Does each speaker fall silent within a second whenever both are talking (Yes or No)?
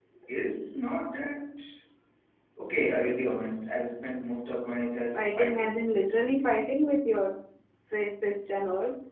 No